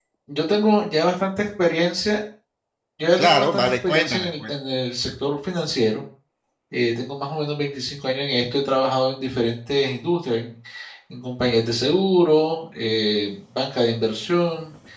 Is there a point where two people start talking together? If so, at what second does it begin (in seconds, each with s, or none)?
3.2 s